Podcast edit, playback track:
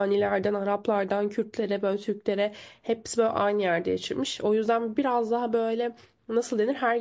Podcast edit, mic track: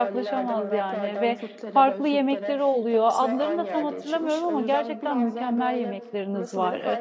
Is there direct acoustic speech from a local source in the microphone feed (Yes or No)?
Yes